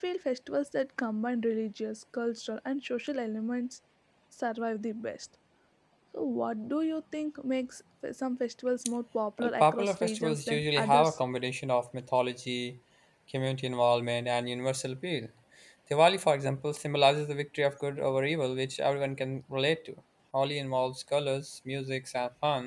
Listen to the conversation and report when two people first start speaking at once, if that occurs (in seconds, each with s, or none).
9.4 s